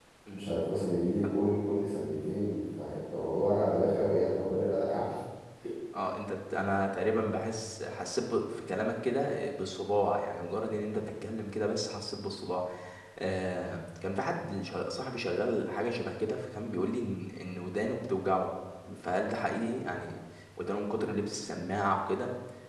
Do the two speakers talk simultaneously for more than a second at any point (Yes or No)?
No